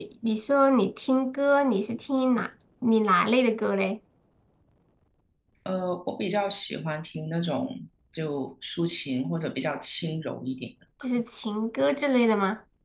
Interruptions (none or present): none